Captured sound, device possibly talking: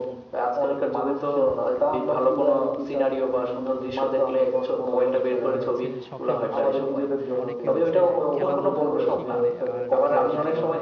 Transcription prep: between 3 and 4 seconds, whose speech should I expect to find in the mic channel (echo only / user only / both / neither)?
echo only